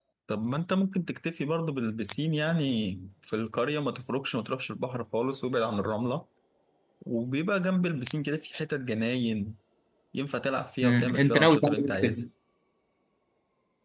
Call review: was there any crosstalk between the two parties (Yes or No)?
Yes